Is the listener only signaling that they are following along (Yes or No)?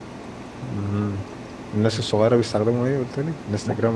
No